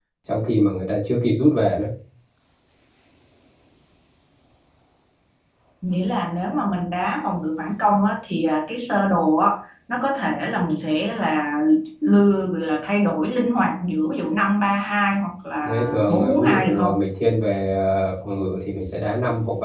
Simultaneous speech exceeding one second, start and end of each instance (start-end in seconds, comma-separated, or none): 15.6-16.9